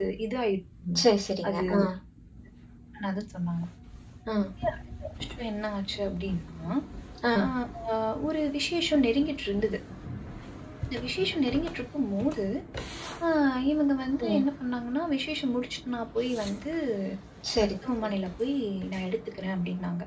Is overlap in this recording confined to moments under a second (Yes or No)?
Yes